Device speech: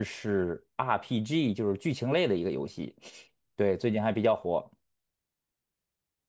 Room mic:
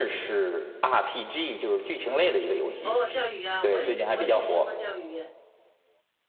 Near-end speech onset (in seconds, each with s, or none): 2.8 s